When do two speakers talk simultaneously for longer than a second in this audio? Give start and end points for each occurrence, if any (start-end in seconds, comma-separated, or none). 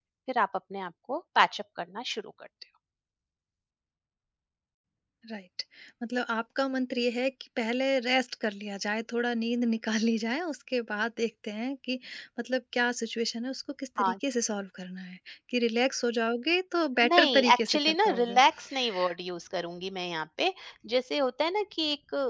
17.1-18.4